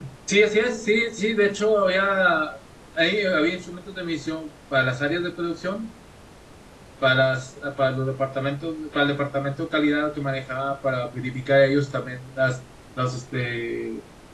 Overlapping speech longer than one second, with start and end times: none

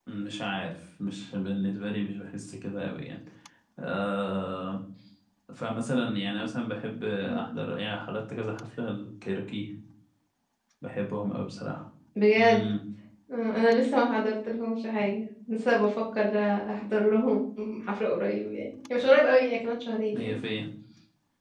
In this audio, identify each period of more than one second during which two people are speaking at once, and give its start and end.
none

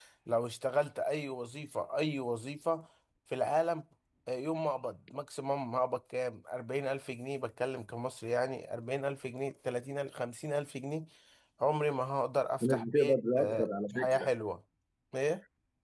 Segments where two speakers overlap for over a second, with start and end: 12.6-14.3

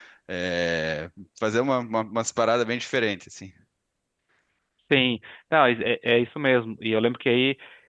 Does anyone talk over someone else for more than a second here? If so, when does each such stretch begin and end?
none

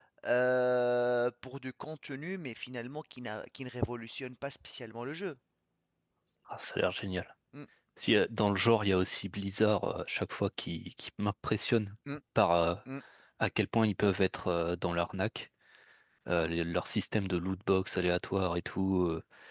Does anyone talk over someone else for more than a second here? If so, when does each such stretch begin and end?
none

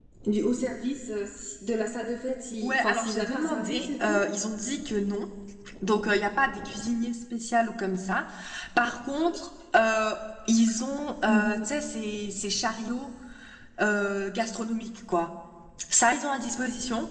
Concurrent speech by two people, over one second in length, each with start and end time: 2.6-4.2

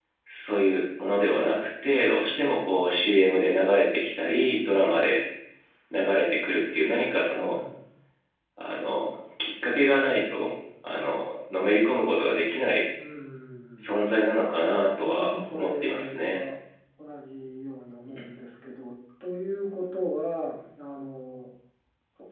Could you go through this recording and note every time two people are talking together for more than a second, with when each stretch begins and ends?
15.0-16.4

